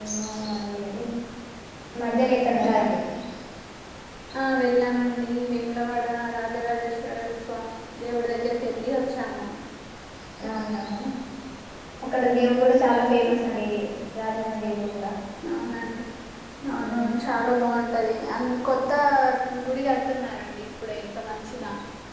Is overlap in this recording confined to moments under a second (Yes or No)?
Yes